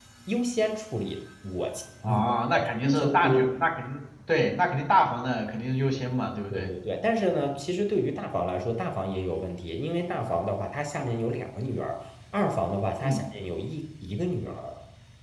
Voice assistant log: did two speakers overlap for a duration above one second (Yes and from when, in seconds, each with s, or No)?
Yes, from 2.0 s